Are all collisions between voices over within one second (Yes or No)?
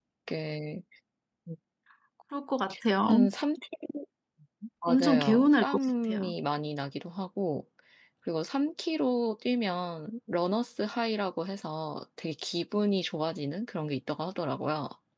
No